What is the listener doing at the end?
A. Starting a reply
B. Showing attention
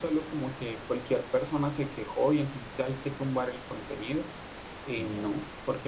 B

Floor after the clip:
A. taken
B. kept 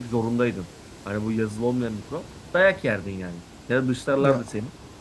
B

